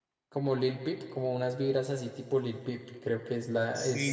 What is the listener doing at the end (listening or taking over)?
taking over